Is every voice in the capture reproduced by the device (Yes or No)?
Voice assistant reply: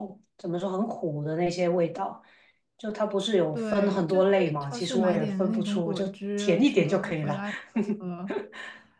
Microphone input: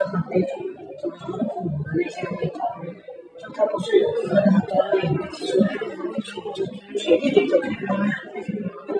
Yes